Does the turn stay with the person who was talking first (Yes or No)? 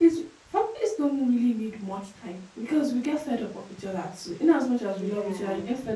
Yes